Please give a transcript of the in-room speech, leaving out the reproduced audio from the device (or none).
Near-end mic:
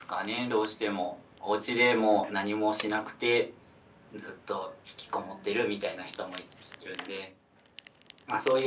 none